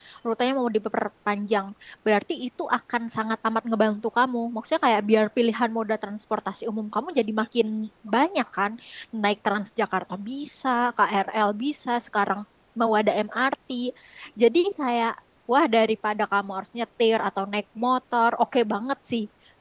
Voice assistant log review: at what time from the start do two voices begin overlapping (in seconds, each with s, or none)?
none